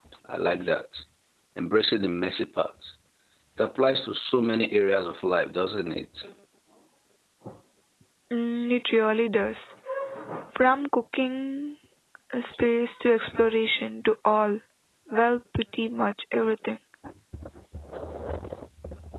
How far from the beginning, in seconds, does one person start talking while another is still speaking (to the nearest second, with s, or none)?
none